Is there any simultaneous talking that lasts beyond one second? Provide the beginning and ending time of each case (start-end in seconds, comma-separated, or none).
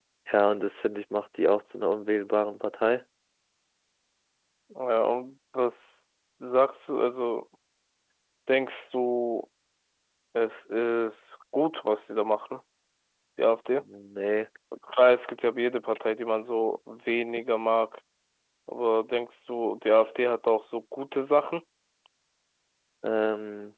none